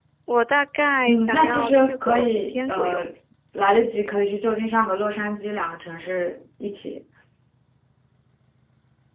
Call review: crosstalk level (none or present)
present